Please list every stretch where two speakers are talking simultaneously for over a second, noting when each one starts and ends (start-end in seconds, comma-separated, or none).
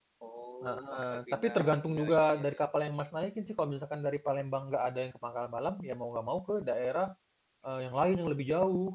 0.6-2.7